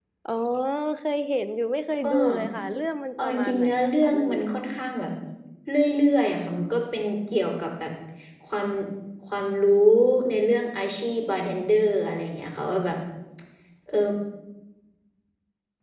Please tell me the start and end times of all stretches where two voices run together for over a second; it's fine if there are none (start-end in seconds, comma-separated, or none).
3.2-4.4